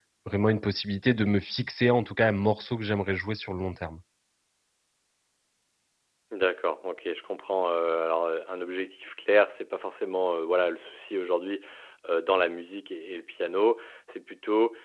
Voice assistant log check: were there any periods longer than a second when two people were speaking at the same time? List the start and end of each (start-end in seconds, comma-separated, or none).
none